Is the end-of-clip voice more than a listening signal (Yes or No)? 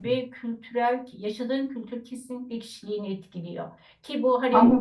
No